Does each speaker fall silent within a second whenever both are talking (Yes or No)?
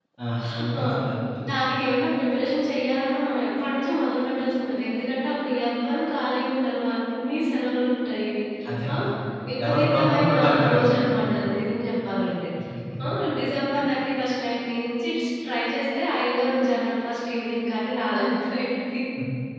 No